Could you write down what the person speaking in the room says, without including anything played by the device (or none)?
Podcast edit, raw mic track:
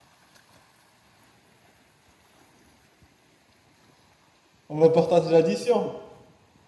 On va partager l'addition.